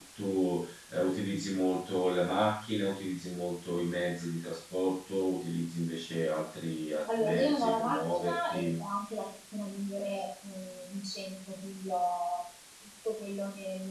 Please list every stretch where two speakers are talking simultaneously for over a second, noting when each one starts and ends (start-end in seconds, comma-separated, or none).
7.2-8.8